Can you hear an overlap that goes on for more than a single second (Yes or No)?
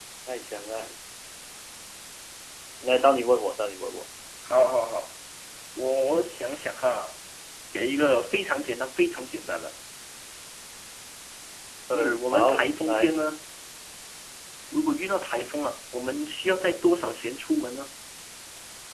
Yes